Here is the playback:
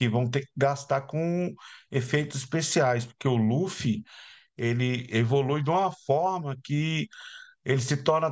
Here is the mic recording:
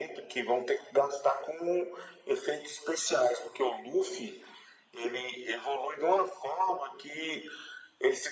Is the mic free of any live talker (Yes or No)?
Yes